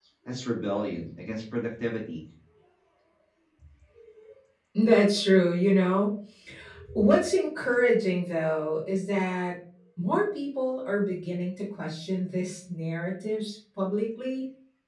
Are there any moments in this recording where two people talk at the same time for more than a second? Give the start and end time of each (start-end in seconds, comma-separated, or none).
none